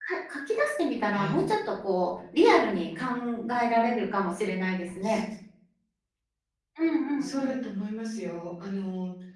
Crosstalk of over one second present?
No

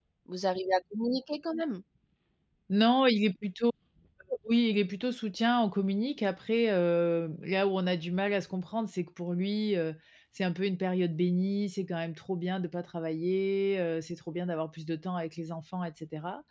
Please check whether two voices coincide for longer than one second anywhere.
No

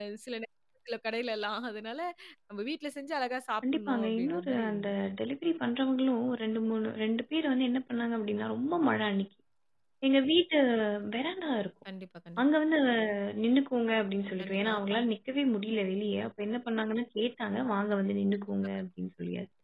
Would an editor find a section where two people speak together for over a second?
Yes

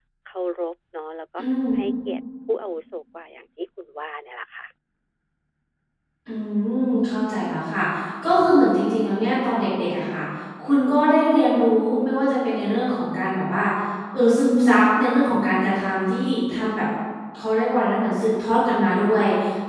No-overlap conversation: Yes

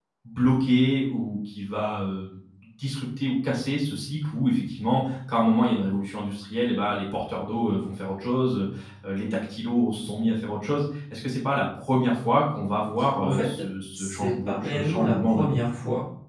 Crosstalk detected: Yes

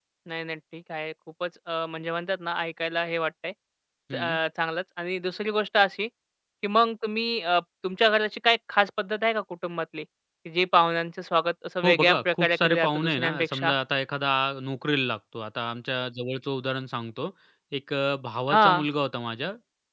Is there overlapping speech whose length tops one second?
Yes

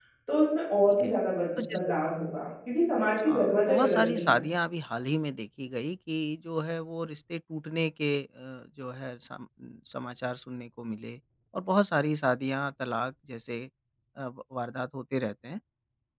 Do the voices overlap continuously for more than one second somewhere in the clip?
Yes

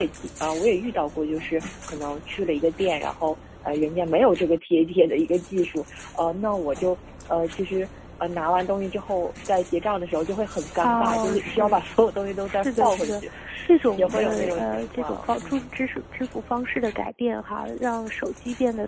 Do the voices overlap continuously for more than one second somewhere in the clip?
Yes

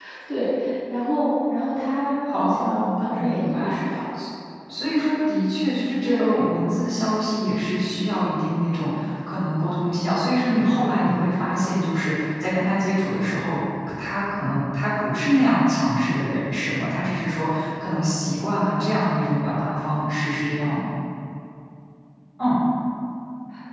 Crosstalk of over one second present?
Yes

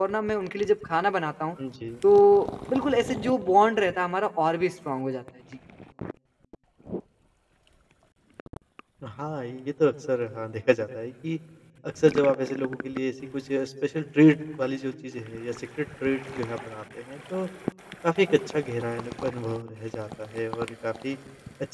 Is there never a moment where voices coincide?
Yes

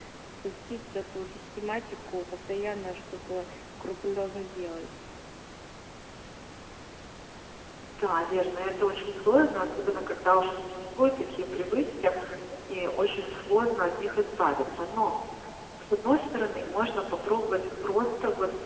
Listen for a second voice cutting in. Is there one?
No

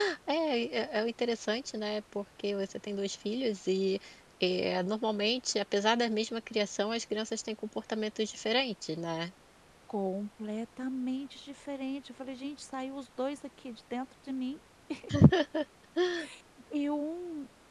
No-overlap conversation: Yes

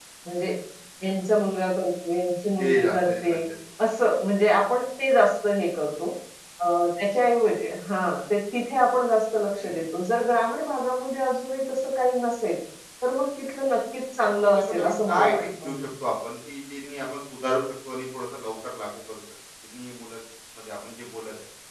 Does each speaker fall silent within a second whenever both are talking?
No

